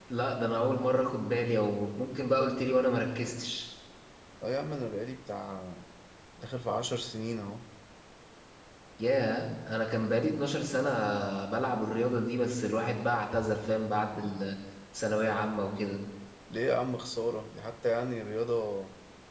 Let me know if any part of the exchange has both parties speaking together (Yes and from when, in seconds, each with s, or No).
No